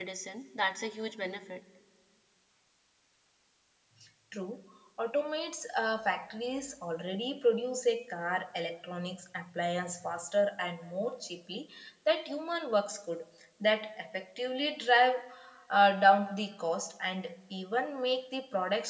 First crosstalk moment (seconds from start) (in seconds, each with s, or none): none